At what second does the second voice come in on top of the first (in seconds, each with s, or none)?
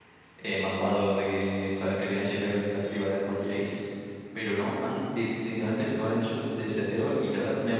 none